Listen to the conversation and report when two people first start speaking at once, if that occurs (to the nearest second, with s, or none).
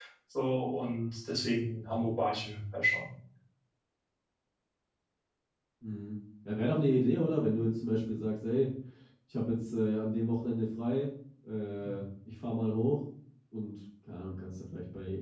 none